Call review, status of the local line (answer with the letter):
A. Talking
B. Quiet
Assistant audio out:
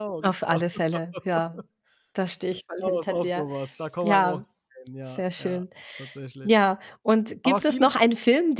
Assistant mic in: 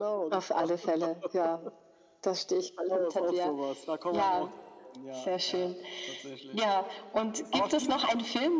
B